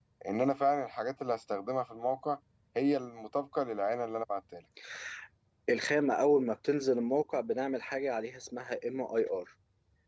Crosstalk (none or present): none